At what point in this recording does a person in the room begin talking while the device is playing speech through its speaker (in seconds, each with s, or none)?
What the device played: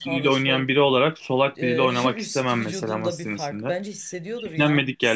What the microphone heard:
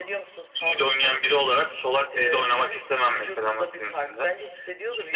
none